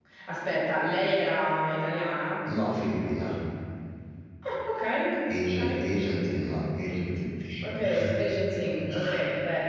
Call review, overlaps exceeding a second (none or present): none